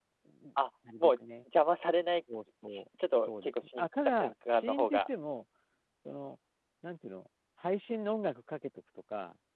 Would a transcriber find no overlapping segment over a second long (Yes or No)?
No